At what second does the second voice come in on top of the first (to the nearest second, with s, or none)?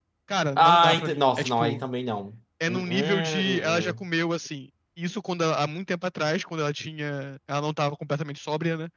1 s